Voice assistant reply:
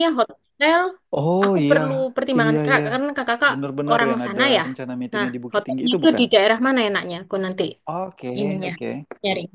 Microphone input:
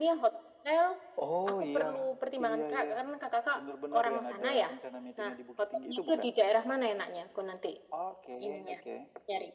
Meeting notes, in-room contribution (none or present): none